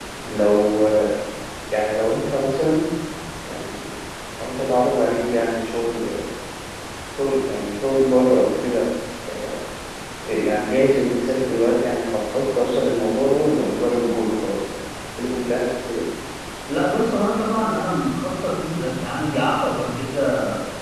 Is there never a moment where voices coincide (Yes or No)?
Yes